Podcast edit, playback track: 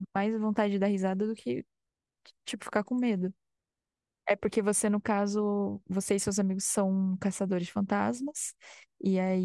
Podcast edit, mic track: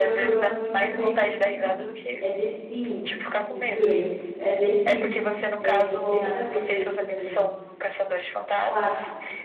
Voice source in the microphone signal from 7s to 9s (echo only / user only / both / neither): both